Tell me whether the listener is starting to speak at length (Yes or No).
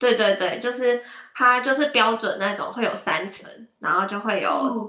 No